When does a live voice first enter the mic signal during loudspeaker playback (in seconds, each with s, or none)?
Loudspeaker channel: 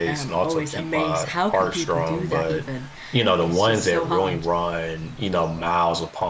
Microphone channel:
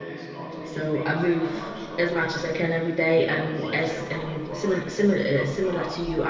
0.6 s